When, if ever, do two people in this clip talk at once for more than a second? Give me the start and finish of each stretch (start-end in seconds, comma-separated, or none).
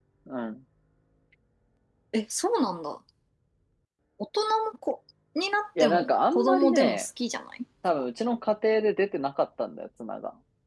5.8-7.0